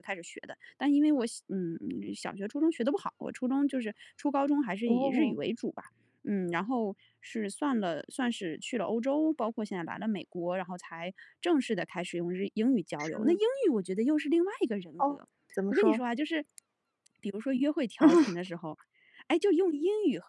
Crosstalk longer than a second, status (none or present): none